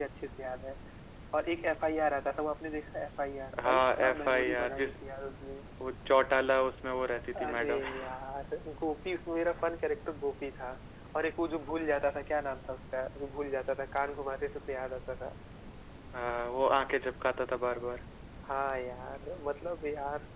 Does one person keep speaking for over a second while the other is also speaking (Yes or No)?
Yes